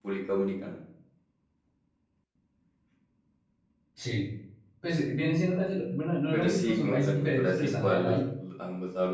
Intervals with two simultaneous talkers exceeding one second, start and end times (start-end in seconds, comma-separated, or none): 6.3-8.2